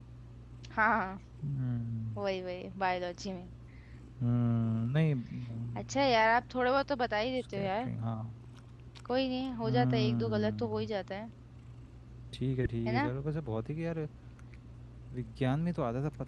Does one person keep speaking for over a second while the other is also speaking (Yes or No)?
Yes